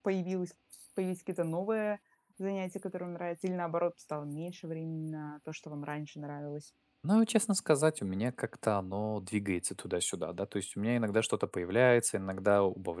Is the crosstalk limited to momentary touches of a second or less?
Yes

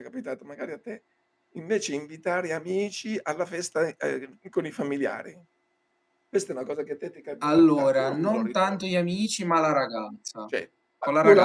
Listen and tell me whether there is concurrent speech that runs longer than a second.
Yes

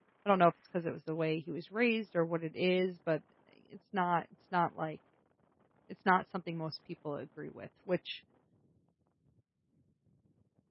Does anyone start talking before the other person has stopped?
No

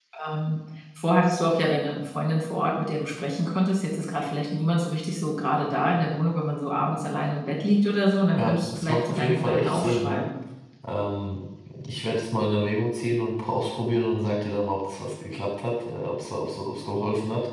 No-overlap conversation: No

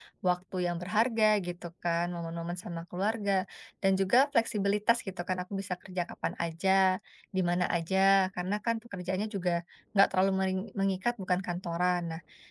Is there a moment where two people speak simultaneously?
No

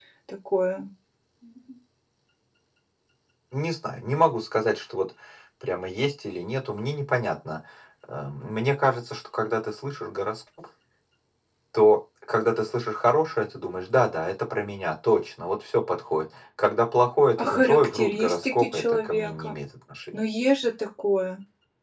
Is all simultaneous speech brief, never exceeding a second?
No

